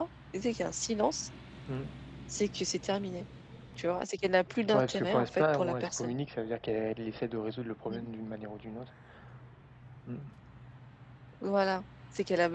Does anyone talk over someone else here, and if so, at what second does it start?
5 s

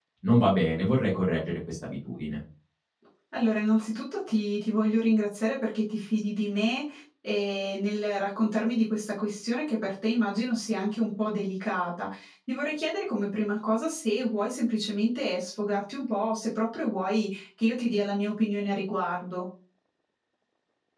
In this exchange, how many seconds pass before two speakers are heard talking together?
none

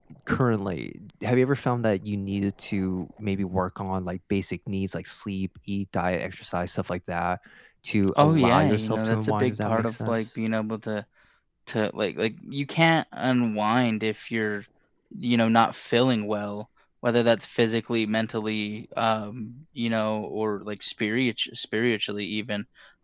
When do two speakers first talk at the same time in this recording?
8 s

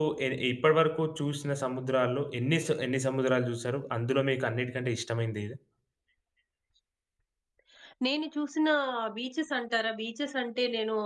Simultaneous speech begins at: none

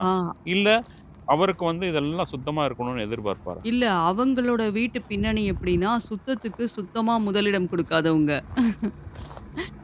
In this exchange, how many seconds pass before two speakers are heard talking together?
none

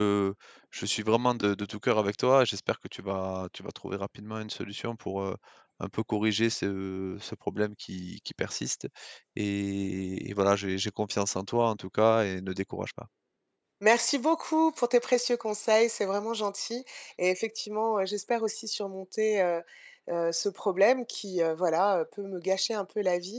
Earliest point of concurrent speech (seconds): none

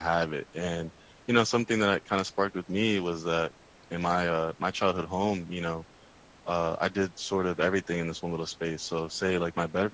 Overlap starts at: none

